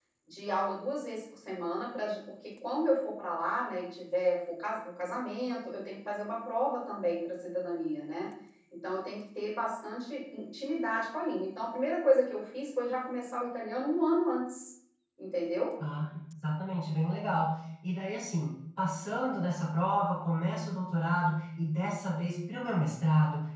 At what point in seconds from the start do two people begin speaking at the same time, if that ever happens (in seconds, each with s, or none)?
none